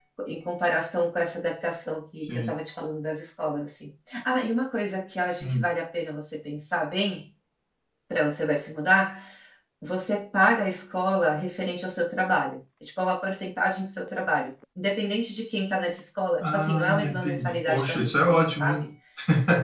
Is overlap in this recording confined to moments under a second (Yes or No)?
No